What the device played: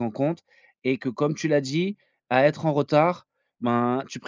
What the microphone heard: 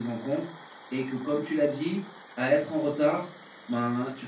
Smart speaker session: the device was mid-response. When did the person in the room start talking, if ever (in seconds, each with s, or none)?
none